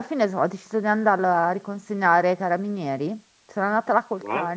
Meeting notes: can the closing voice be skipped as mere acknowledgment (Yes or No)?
Yes